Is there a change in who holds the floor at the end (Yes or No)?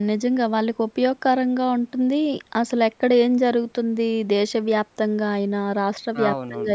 No